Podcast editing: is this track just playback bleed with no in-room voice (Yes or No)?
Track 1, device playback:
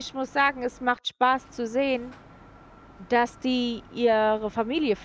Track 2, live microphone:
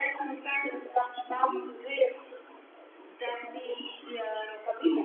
No